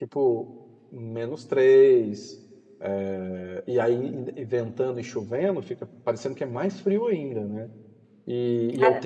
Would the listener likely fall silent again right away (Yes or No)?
No